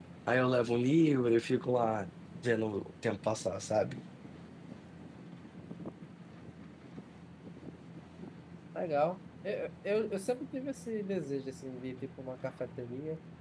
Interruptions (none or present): none